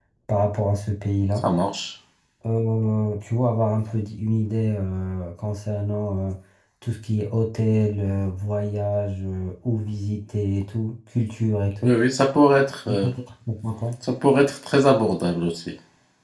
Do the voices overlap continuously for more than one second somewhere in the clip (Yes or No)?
No